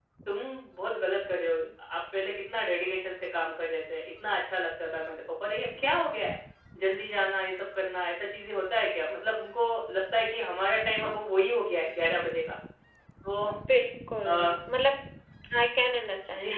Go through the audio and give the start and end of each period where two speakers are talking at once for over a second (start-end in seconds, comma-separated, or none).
none